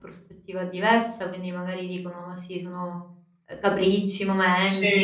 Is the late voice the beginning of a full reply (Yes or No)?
No